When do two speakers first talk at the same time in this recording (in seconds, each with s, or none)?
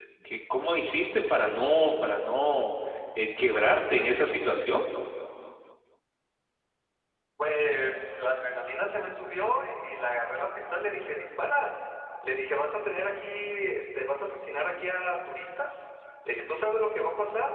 none